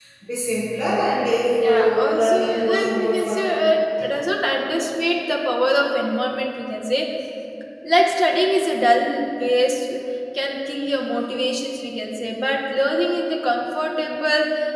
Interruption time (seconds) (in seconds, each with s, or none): 1.6 s